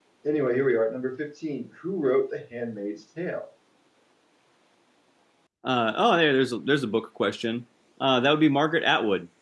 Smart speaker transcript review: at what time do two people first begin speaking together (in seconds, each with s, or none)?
none